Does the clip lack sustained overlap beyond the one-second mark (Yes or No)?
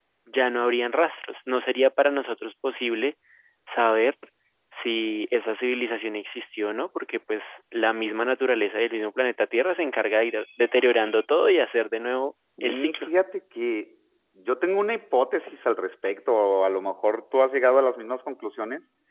Yes